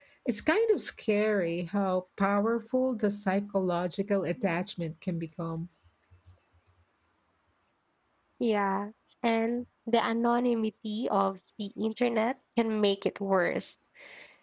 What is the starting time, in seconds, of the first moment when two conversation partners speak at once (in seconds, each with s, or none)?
none